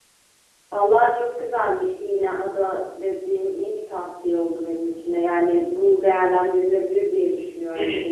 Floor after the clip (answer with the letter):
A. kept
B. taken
B